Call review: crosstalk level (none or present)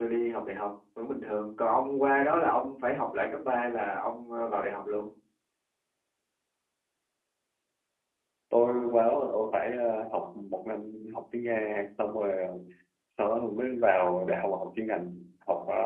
none